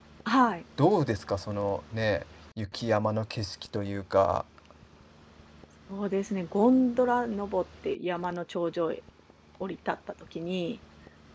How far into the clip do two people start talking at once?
none

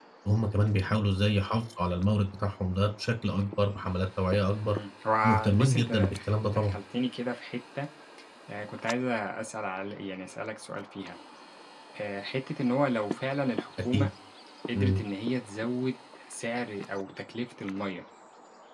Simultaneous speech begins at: 5.2 s

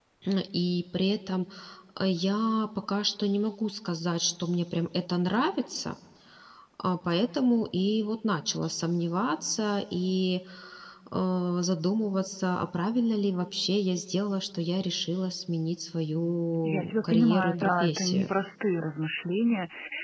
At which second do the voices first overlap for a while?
16.6 s

